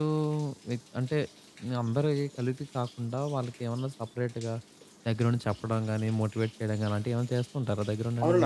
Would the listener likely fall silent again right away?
No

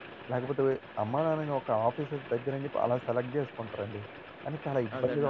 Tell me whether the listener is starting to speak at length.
Yes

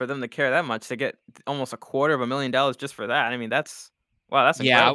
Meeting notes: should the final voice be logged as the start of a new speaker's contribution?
Yes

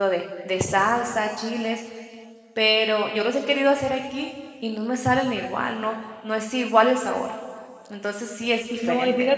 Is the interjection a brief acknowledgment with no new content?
No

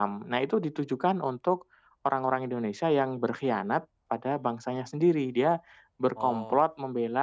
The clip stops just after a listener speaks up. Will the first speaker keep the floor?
Yes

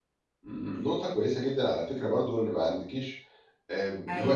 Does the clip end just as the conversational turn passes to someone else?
No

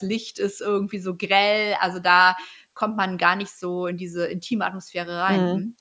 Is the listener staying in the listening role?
No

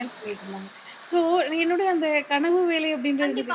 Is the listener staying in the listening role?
No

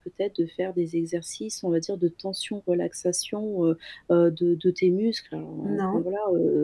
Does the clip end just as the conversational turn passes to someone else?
No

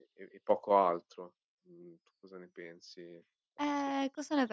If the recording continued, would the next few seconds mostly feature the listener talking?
Yes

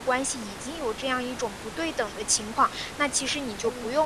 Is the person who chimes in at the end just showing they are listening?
Yes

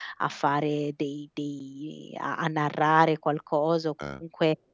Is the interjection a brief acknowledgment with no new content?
Yes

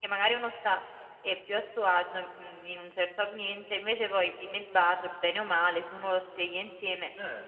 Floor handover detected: Yes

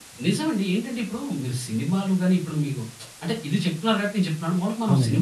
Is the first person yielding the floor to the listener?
No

